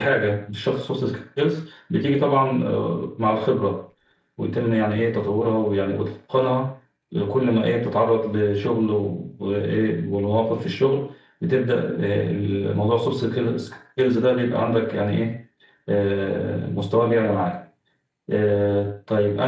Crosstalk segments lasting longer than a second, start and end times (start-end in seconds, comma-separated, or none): none